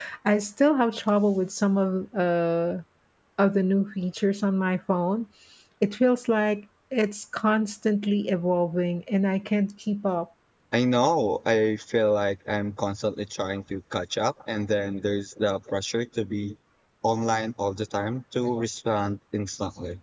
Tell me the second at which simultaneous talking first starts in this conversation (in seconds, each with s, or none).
none